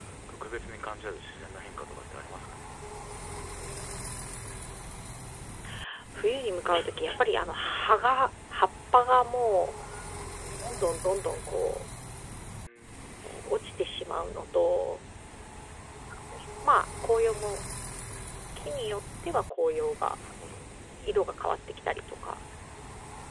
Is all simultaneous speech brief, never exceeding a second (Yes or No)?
Yes